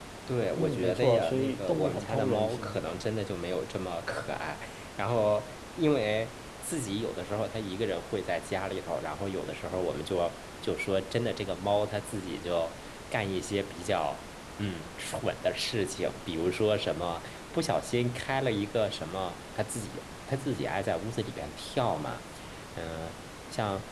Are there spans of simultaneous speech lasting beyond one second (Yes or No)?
Yes